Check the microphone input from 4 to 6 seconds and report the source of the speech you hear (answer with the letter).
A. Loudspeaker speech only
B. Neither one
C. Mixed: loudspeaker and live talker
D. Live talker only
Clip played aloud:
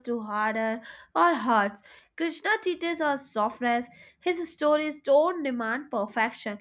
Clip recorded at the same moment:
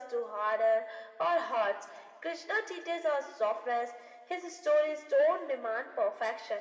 A